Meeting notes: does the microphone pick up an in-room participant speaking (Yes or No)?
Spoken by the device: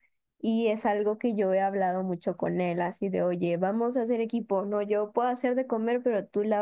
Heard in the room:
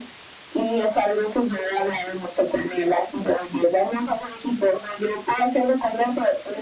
No